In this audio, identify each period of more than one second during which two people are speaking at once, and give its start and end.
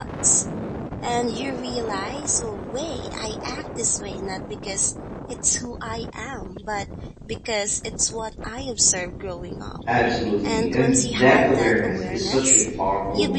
10.4-12.6

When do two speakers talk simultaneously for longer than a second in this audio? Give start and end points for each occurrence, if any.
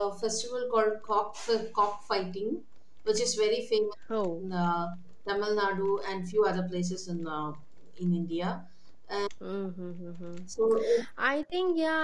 none

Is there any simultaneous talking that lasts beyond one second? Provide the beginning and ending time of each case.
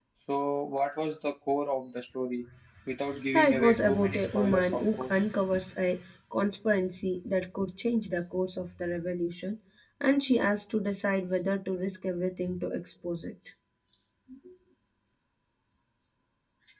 3.3-5.2

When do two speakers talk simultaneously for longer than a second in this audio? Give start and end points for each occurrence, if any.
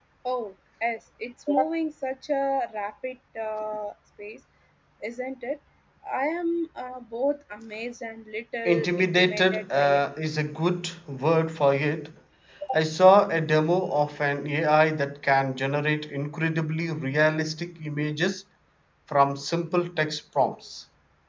8.7-10.0

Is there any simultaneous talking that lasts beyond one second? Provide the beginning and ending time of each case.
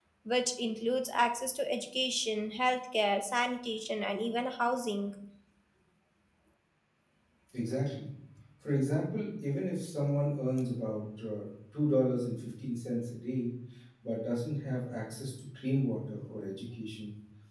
none

